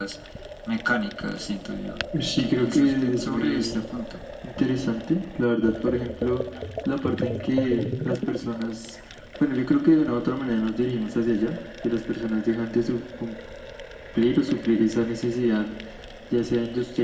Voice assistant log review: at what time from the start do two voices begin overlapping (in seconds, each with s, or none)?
2.4 s